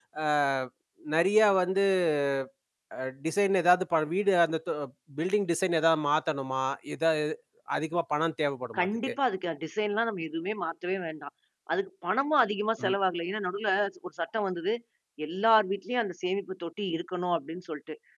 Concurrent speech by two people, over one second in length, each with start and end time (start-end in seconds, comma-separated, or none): none